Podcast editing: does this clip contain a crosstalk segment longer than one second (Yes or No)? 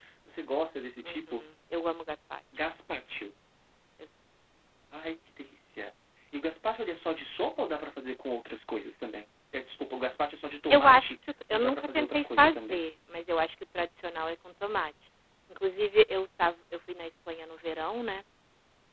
Yes